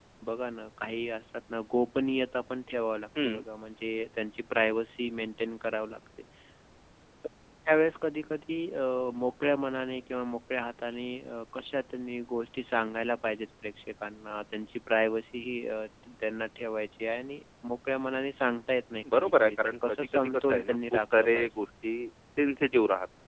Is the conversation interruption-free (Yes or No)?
No